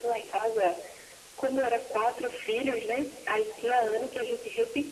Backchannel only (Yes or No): Yes